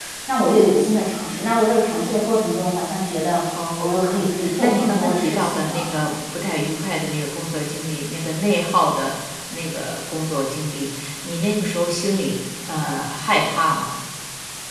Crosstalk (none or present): present